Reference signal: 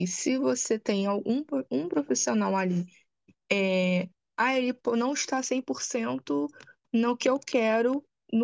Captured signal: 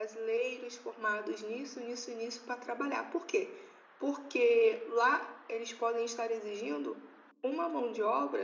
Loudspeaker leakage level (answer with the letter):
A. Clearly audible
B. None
B